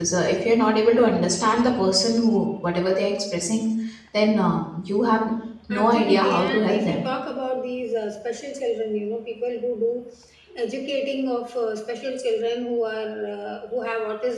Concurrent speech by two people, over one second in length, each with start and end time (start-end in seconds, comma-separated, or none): 5.7-7.1